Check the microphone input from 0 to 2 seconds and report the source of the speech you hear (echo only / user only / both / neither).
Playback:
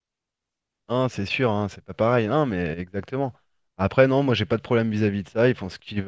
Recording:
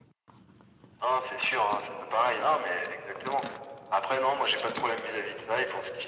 echo only